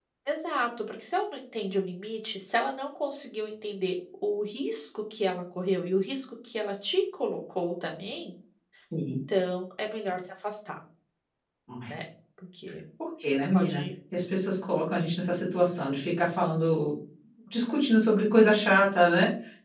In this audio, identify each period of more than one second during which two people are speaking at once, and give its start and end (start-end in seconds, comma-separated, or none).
none